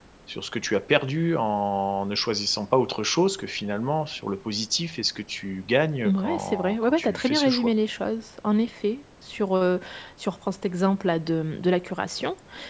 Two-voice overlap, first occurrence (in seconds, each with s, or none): 6.0 s